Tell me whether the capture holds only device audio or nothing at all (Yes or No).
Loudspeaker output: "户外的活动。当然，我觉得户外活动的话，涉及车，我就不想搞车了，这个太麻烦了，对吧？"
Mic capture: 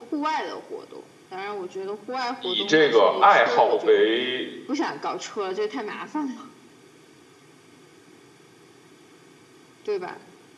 No